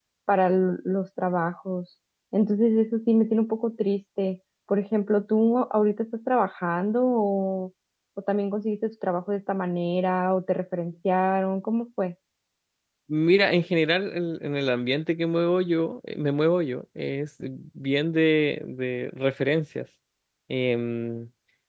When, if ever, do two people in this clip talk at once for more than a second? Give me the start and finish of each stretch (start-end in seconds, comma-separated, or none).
none